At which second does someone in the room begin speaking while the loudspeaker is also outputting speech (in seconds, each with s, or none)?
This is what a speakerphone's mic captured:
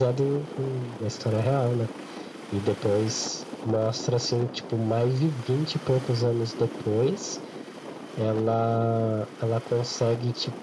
none